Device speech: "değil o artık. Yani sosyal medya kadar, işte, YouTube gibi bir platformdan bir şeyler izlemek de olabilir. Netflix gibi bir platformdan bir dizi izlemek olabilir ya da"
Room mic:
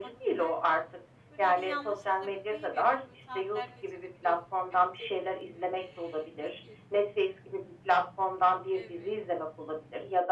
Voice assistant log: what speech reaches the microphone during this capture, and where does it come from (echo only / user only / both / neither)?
both